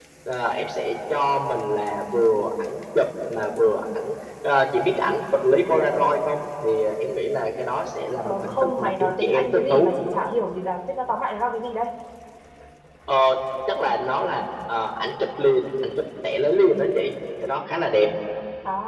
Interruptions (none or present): present